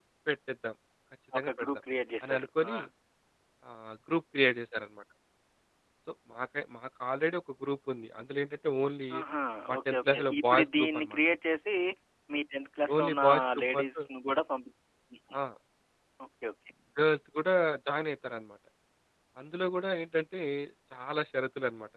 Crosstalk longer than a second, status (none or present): present